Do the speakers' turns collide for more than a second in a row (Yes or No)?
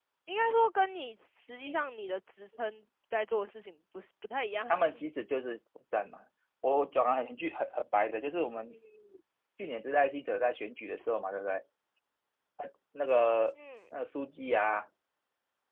No